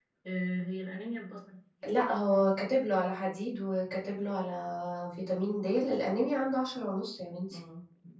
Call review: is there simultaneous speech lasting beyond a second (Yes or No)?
No